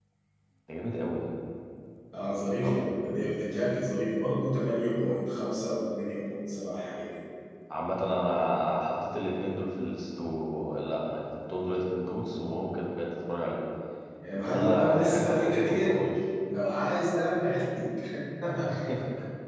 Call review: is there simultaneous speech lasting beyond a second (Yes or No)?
Yes